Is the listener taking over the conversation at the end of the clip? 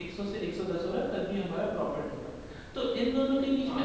No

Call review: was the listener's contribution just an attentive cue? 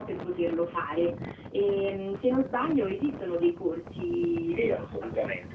No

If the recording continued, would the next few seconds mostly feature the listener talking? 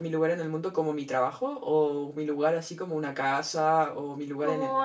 Yes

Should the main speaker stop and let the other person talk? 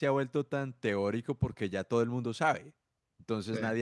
No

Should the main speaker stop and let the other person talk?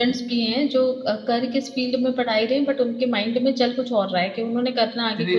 Yes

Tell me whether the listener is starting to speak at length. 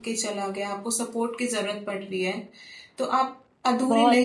No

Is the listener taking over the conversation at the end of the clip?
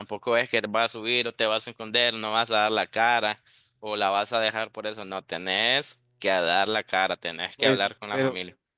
Yes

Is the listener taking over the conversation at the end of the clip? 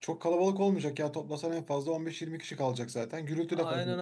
Yes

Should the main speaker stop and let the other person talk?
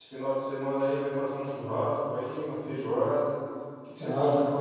No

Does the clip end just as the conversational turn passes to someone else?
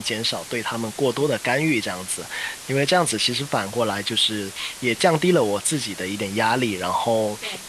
No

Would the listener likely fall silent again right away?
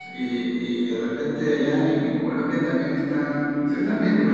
No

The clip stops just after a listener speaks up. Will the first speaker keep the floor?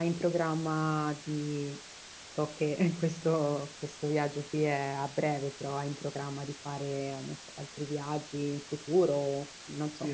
No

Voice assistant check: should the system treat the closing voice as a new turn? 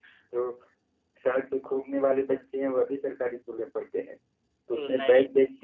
No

